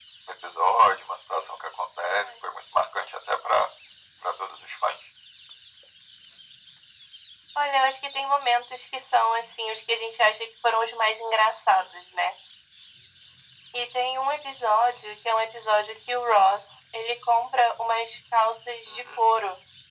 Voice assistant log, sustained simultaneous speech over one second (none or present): none